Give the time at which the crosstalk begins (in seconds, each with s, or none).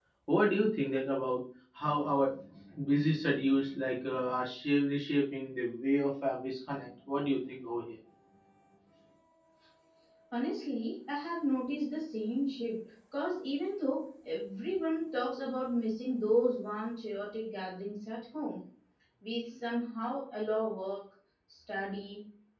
none